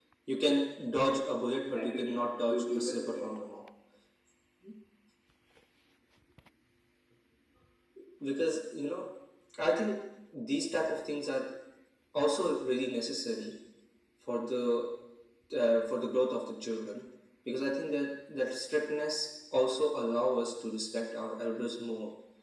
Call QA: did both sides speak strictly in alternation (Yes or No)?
No